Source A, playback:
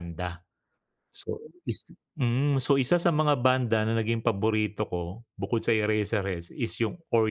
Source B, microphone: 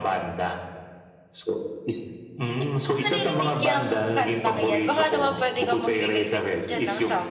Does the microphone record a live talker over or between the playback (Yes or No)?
Yes